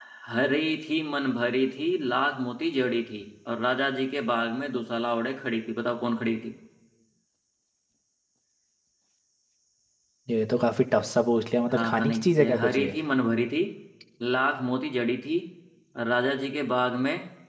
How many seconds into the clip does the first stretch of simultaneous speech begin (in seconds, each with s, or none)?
11.7 s